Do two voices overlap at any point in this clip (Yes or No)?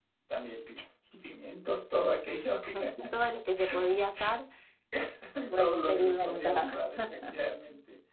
Yes